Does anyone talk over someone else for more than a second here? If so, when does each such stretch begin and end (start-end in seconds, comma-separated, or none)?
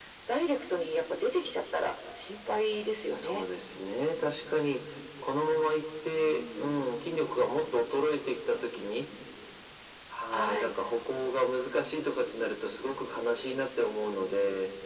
none